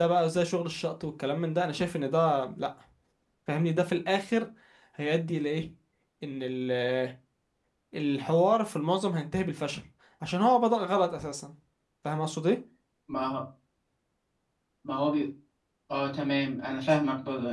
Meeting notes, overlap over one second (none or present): none